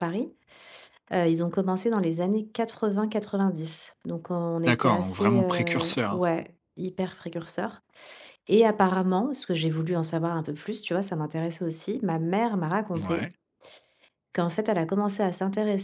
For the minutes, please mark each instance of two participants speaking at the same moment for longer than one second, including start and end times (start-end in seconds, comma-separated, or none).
4.7-6.2